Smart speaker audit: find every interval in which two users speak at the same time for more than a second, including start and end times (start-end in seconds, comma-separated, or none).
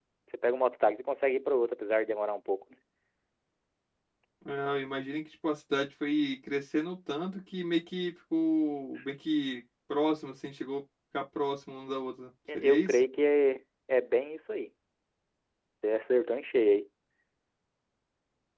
none